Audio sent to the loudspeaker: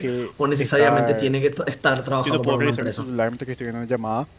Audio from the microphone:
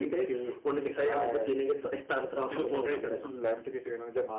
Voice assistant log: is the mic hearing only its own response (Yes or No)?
Yes